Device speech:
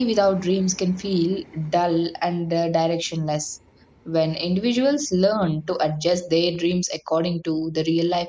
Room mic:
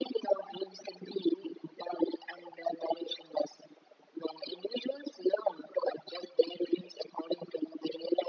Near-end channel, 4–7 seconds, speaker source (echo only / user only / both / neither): echo only